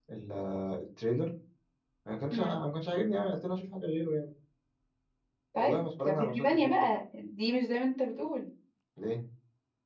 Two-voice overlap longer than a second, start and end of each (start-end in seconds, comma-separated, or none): 5.6-6.8